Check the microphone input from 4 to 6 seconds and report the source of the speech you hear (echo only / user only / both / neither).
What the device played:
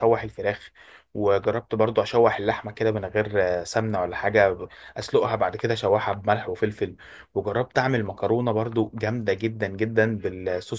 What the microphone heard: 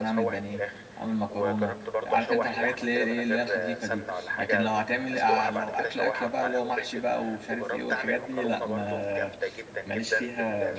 both